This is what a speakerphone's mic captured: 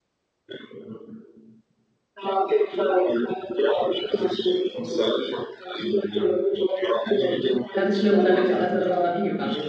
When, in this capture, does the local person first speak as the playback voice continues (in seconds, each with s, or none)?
7.7 s